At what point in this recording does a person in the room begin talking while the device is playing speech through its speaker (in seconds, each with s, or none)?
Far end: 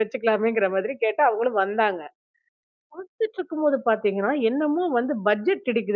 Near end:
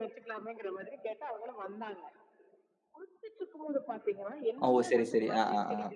4.7 s